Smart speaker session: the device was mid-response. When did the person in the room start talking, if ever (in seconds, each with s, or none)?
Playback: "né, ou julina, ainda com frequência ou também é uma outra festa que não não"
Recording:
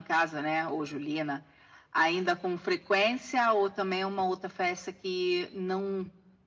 none